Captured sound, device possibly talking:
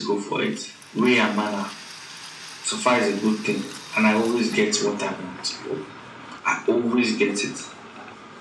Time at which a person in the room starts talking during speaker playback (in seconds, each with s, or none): none